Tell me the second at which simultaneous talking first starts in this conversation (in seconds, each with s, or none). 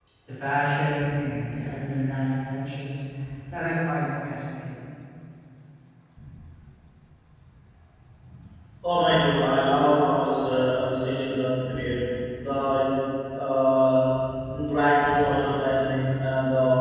none